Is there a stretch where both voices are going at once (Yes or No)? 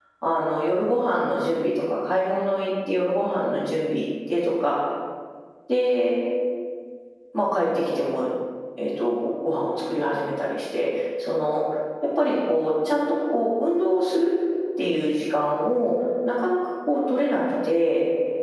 No